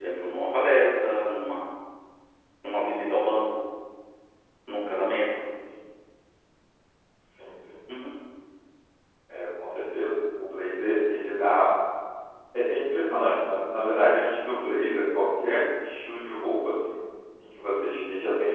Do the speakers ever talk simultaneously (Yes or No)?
No